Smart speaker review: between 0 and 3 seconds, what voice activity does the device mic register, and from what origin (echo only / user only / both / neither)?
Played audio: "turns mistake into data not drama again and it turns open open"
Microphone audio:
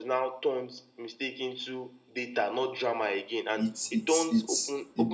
echo only